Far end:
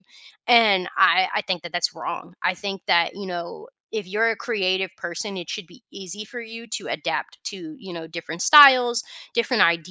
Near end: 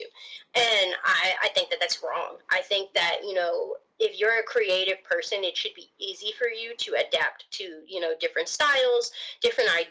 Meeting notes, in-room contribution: present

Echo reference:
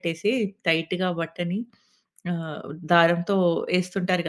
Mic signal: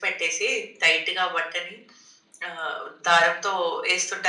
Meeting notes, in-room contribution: none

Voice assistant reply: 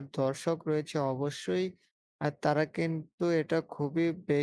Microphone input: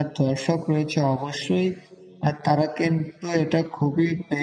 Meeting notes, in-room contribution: none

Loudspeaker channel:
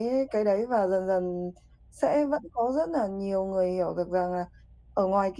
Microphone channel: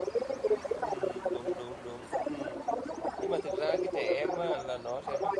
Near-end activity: present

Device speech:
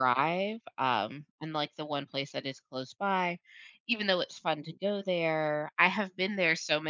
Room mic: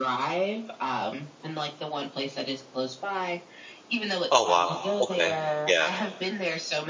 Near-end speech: present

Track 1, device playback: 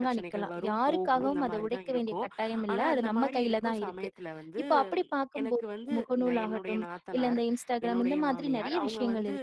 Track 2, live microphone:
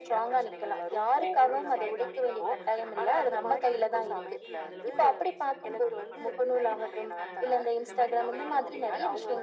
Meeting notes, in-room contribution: present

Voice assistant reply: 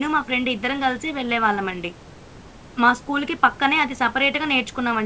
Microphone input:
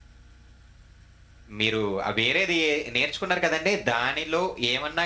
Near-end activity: present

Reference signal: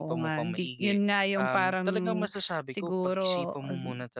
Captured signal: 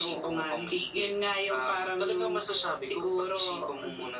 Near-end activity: none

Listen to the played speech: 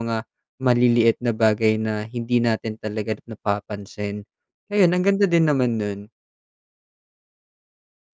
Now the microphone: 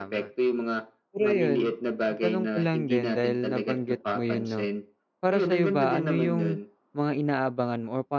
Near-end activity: present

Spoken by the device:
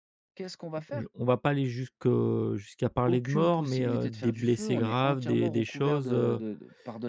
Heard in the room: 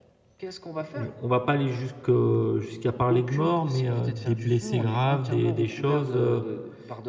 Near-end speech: none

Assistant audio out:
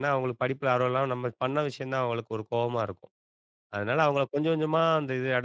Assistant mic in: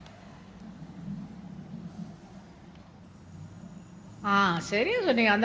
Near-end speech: present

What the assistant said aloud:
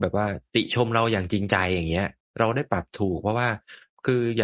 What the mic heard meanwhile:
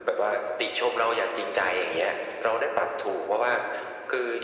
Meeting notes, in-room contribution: none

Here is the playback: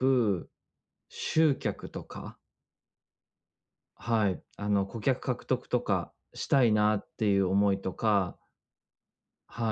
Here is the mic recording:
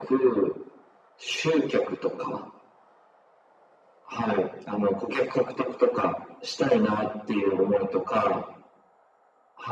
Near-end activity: none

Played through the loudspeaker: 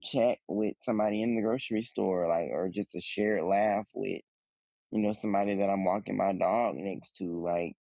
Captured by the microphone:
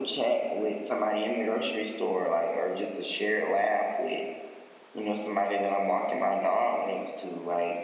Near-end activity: none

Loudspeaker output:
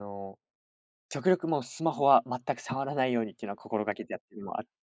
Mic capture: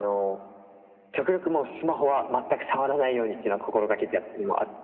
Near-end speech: none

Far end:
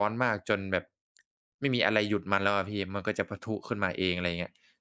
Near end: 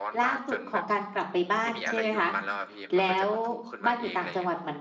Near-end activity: present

